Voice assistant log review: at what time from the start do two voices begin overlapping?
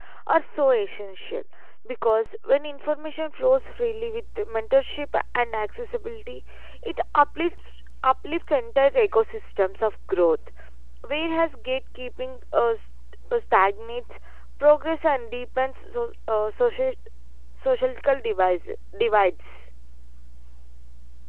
none

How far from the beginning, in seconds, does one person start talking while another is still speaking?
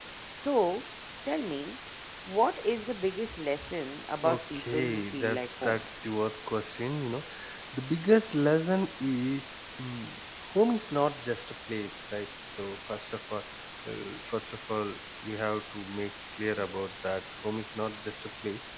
4 s

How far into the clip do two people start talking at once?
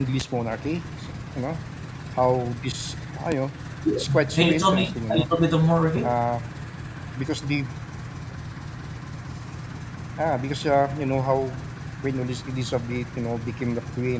4 s

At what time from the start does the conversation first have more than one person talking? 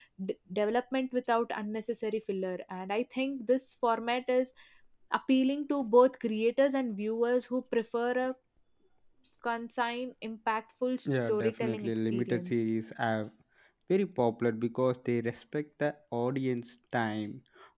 11 s

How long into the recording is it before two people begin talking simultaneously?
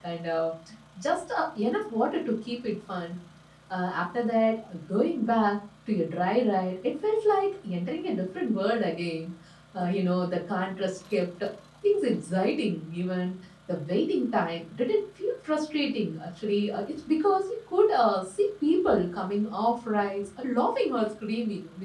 none

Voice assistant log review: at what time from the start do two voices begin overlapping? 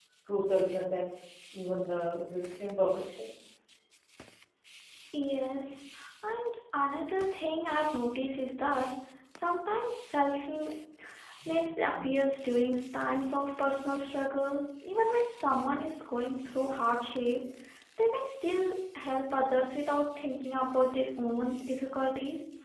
none

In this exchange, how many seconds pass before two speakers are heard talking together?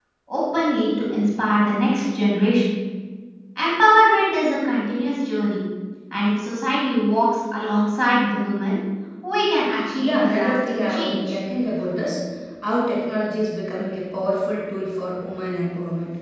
10 s

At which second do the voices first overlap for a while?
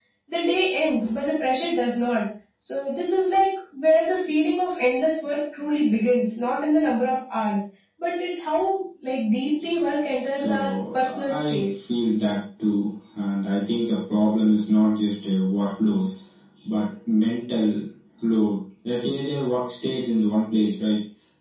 10 s

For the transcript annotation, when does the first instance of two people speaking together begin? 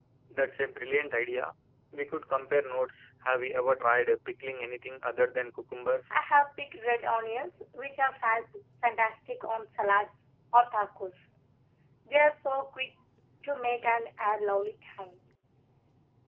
none

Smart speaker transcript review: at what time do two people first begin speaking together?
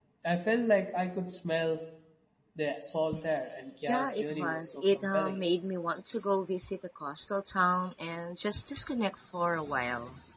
4 s

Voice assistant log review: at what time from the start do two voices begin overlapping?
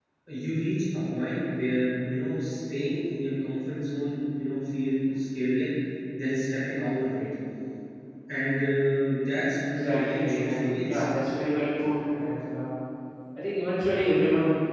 10 s

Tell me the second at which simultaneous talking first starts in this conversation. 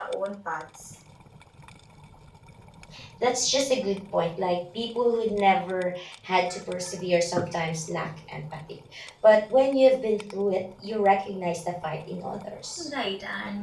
none

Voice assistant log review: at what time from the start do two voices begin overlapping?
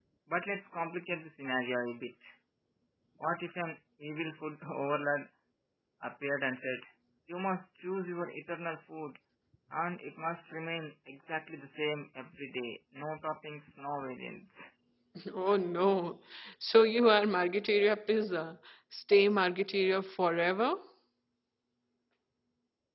none

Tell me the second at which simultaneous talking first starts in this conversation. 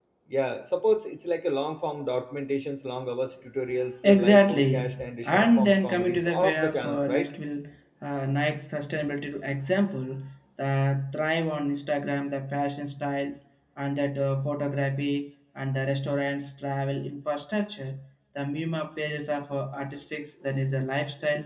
4 s

